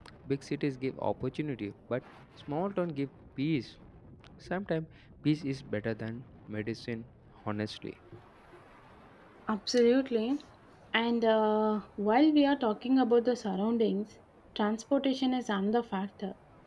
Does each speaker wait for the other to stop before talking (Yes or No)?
Yes